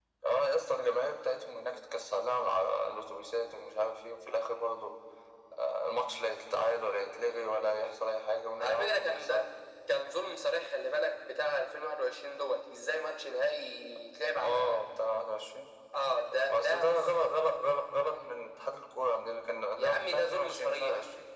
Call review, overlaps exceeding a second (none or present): present